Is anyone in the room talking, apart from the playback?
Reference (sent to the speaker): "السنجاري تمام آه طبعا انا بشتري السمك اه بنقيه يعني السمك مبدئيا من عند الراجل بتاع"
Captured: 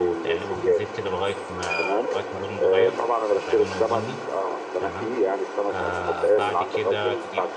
Yes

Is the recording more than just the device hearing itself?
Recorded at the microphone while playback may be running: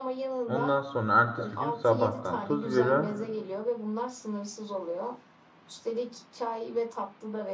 Yes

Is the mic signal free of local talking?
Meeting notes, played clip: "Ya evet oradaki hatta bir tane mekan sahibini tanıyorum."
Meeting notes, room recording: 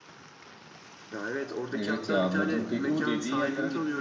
No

